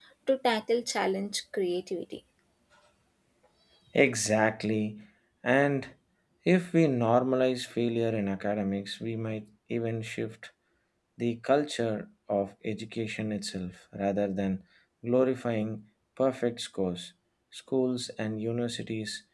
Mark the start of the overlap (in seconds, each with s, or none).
none